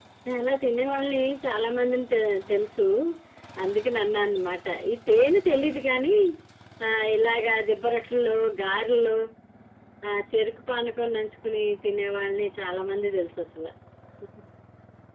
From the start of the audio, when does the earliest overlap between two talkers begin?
none

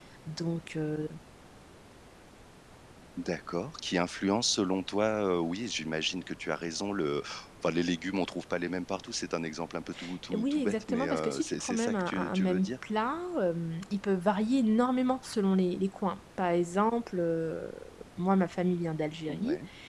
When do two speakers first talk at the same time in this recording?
10 s

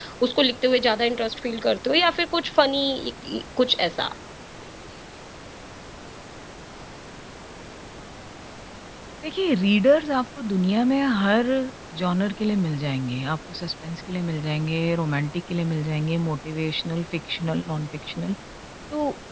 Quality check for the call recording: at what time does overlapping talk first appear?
none

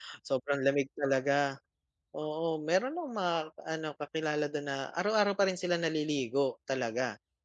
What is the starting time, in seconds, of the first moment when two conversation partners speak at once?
none

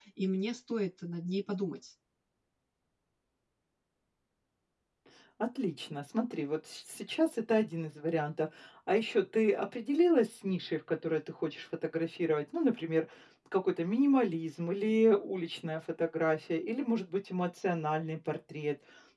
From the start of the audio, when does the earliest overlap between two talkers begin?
none

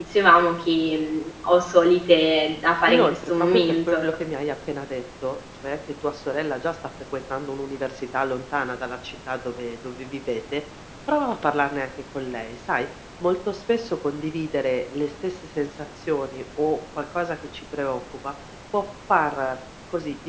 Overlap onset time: 3 s

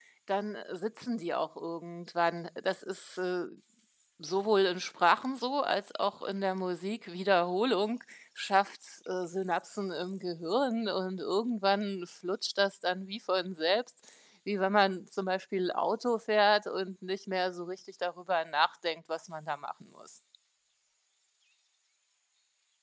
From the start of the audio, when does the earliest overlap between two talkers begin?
none

